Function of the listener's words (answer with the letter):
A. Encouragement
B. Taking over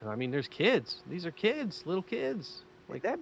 B